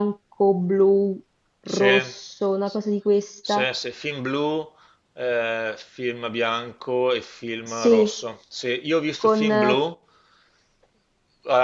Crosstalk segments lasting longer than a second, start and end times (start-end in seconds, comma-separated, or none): none